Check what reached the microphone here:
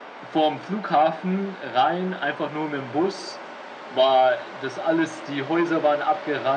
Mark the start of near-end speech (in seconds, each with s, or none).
none